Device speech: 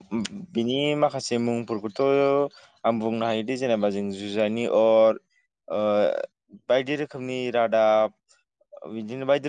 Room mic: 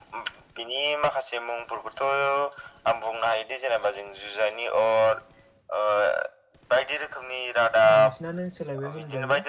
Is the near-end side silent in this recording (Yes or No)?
No